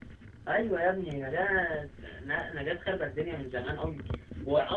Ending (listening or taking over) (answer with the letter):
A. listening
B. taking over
A